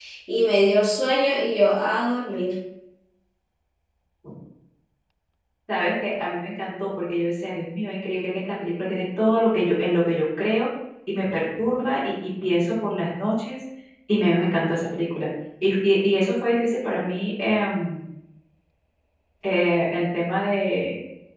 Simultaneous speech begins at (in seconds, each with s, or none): none